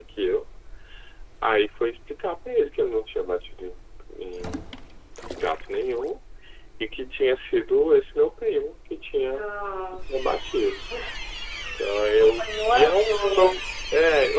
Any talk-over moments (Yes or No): Yes